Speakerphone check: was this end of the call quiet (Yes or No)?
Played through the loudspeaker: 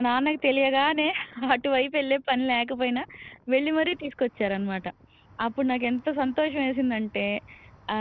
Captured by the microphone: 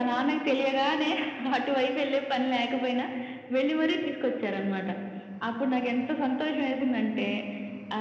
Yes